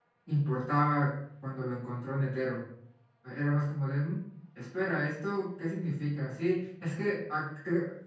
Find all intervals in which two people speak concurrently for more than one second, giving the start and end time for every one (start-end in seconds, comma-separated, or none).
none